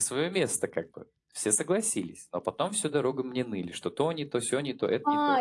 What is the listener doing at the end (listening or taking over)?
taking over